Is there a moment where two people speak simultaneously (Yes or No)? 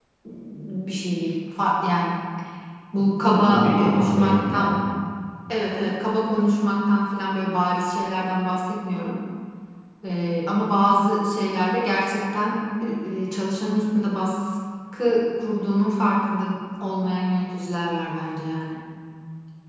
Yes